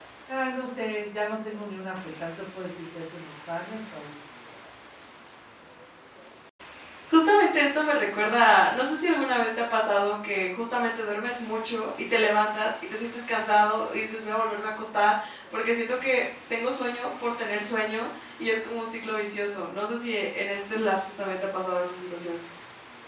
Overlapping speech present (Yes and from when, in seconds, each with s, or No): No